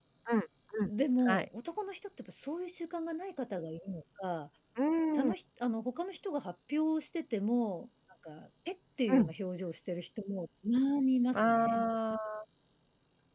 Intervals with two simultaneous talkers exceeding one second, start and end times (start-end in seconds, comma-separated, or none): none